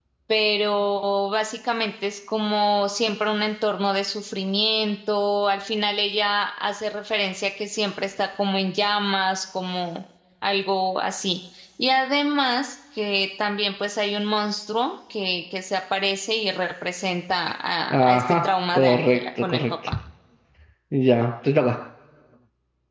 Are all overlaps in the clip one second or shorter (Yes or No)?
No